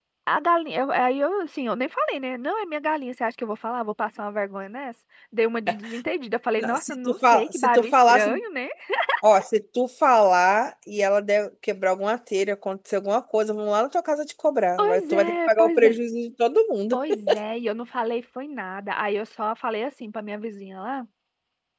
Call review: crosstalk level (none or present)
present